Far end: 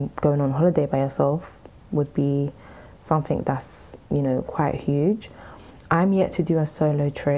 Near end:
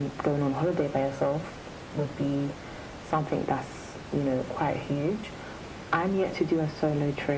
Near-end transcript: none

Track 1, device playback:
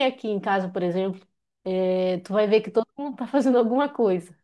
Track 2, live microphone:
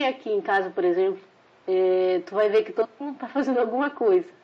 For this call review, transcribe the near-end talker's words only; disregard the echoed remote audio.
none

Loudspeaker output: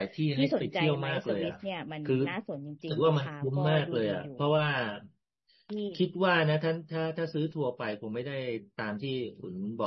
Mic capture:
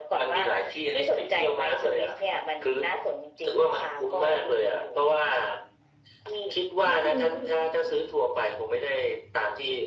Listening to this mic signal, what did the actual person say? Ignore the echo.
ก็คือ

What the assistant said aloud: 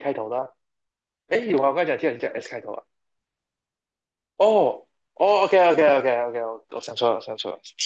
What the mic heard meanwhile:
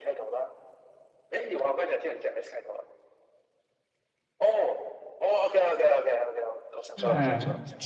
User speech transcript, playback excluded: 嗯、

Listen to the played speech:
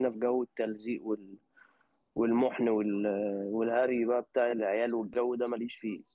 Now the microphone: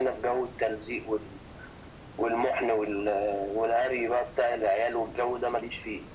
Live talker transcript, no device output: none

